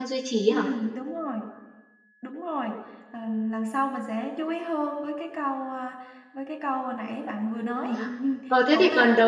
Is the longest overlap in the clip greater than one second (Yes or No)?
No